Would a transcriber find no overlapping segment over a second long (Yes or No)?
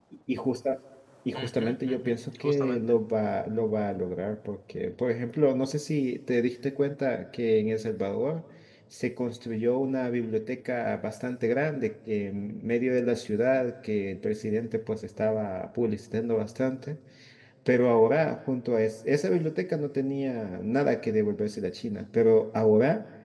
No